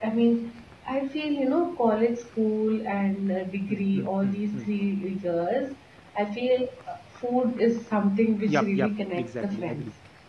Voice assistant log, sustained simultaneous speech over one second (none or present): present